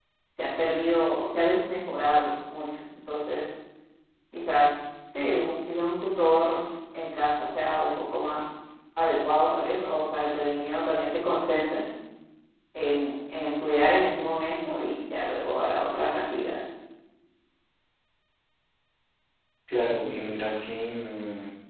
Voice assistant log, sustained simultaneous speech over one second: none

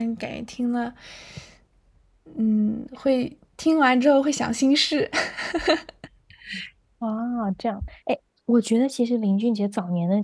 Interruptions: none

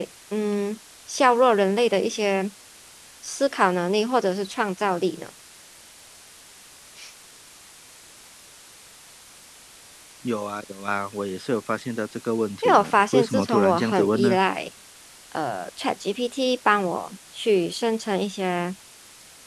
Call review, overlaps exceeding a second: present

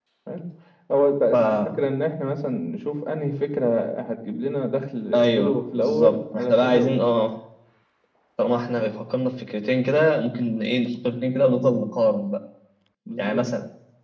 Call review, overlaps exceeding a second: present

